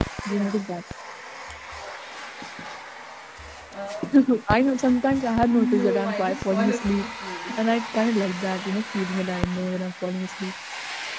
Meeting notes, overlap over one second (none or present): present